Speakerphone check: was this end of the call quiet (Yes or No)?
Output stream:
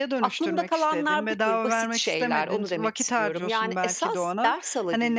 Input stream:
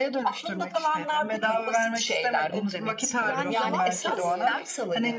No